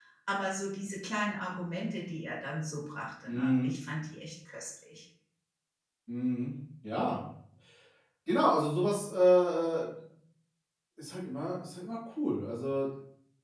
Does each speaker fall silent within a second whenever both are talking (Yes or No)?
Yes